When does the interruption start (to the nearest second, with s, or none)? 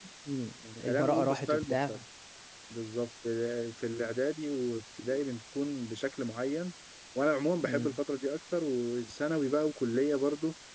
1 s